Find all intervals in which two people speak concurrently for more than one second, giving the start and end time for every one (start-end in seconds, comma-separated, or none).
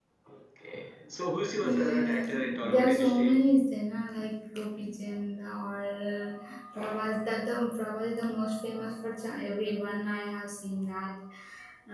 1.7-3.4